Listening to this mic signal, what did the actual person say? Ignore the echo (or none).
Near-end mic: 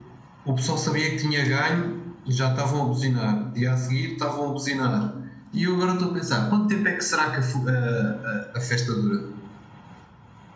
none